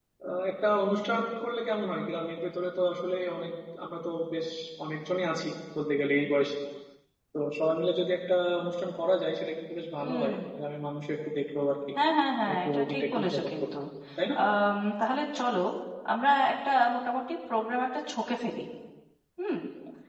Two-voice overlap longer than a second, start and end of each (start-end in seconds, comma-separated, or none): 12.5-13.8